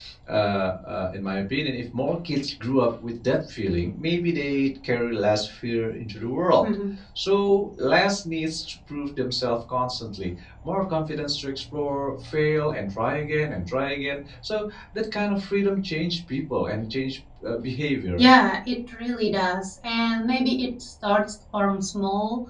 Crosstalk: none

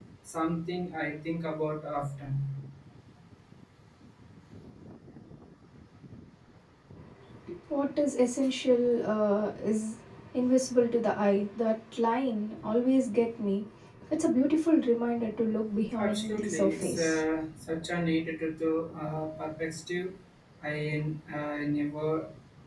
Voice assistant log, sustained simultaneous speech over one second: present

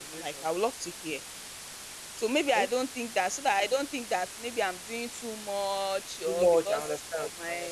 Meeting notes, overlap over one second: present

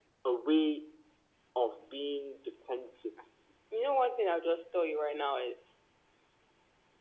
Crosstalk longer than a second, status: none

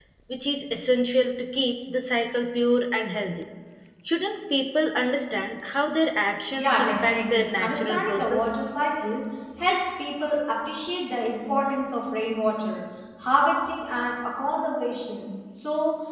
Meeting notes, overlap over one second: present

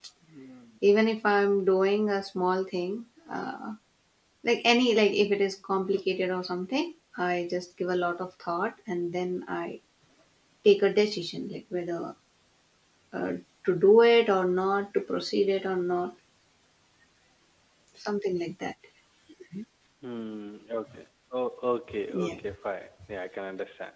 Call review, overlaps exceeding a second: none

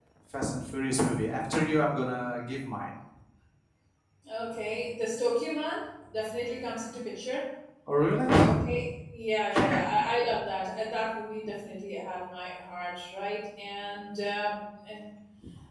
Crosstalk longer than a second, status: none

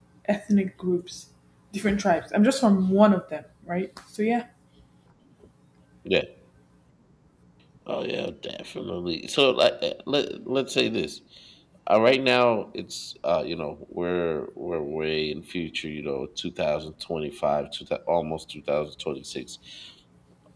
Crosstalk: none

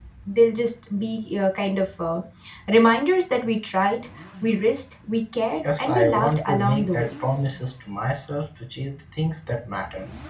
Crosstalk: present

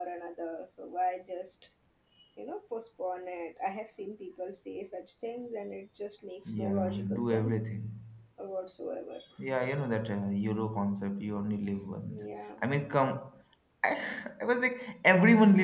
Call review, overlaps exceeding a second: present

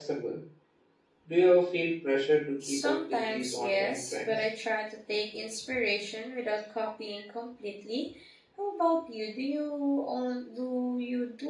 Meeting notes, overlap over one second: present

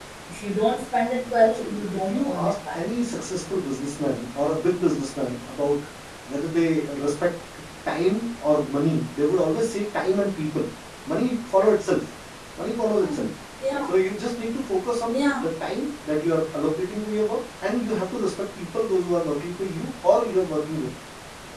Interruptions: present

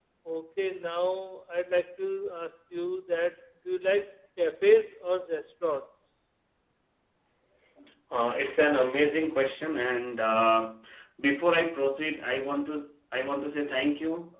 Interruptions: none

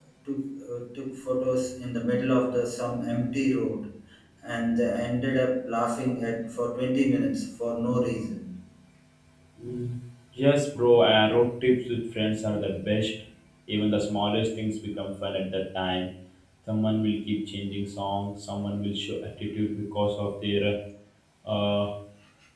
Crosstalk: none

